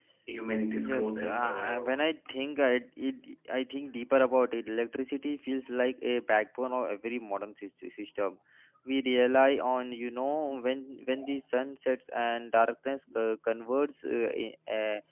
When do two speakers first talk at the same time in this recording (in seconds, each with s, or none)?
0.7 s